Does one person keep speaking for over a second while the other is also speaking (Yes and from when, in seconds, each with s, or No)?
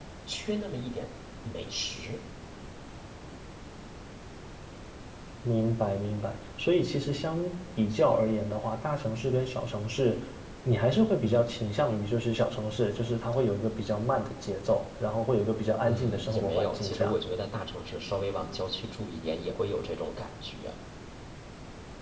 Yes, from 15.9 s